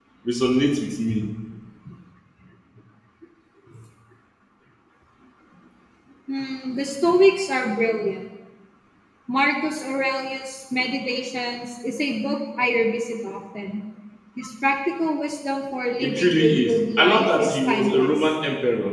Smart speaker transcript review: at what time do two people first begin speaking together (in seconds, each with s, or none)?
16.0 s